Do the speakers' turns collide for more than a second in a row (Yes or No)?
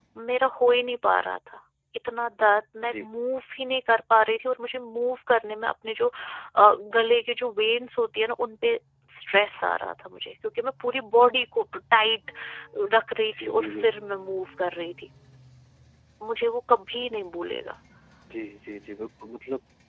No